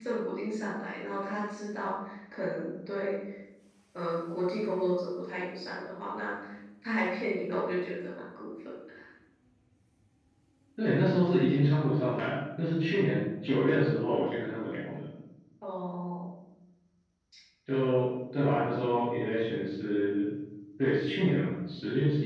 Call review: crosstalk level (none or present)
none